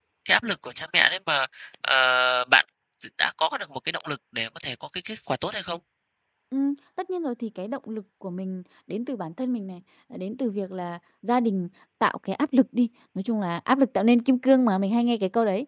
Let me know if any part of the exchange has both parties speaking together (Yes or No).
No